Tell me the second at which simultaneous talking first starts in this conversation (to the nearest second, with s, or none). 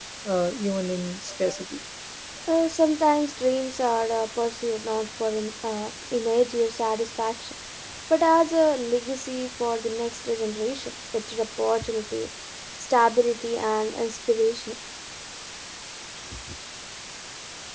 none